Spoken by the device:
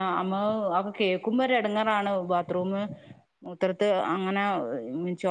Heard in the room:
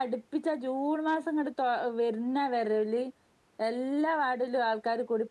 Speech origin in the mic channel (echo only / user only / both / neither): user only